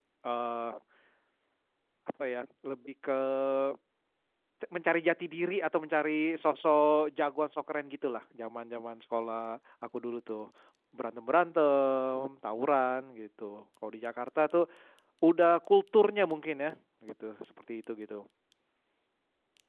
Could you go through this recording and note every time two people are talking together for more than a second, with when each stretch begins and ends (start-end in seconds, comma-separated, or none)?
none